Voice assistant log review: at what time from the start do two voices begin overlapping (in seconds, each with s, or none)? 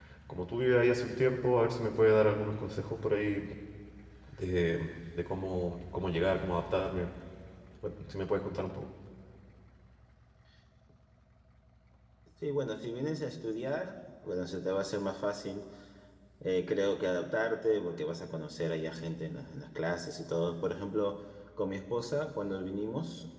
none